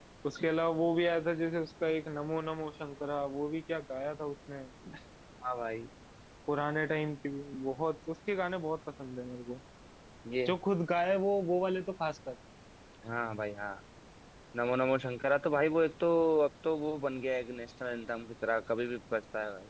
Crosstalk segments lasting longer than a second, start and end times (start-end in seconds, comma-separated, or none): none